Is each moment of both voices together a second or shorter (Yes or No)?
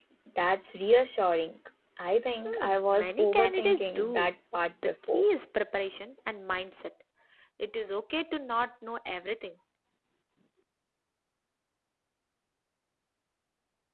No